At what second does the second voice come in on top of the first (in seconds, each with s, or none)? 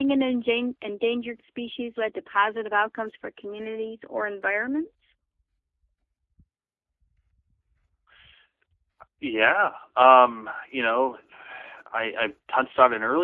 none